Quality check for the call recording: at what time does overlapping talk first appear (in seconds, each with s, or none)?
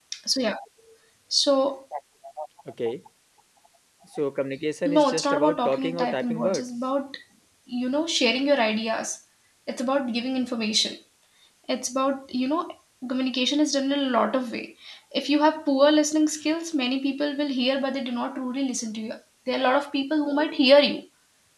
4.8 s